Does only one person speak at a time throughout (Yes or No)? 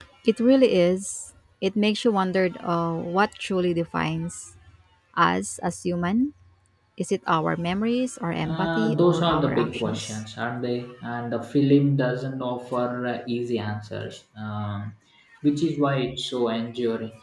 No